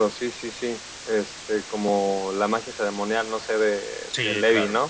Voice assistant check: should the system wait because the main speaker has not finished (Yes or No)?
No